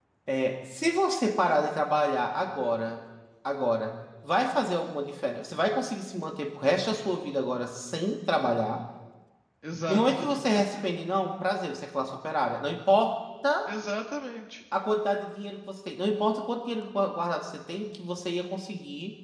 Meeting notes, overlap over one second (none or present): none